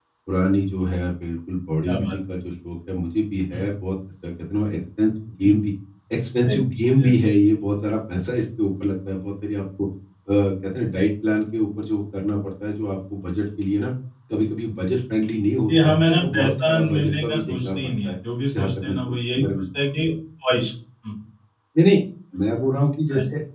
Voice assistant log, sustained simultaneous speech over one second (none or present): present